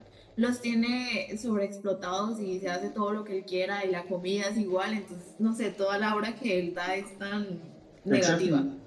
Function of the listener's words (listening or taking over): taking over